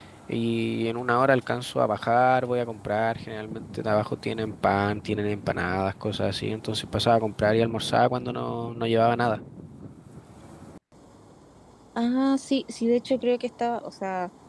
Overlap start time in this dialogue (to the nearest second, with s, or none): none